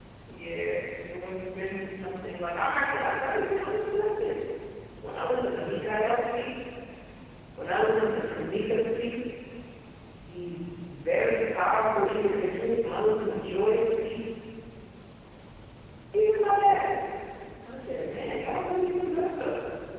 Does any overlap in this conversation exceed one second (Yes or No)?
No